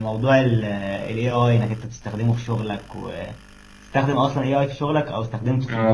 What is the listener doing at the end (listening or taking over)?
taking over